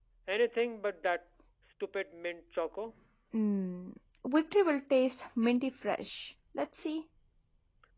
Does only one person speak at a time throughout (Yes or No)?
Yes